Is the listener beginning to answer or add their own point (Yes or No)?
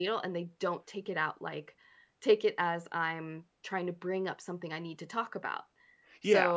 Yes